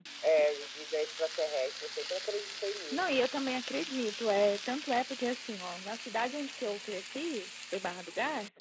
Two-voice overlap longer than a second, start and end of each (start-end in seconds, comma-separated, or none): none